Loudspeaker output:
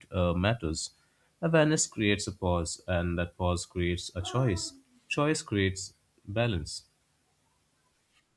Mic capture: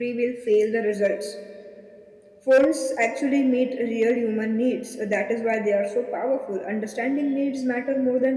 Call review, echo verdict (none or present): none